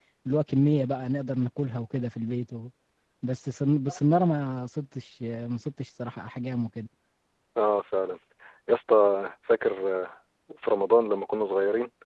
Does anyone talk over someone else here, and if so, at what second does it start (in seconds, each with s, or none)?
none